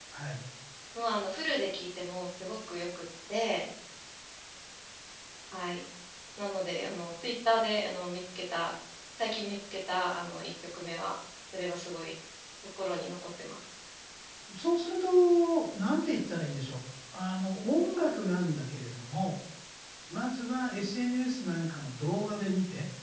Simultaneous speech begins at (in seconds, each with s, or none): none